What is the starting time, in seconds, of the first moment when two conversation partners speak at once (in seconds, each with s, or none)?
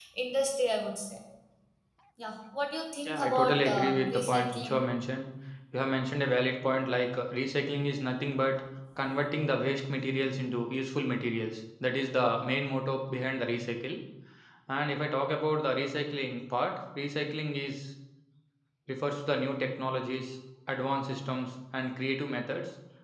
3.0 s